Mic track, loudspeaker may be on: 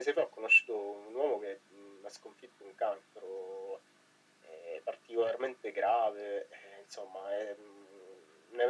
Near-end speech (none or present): none